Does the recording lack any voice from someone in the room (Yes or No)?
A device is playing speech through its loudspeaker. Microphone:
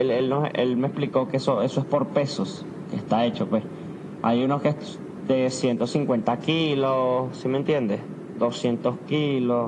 Yes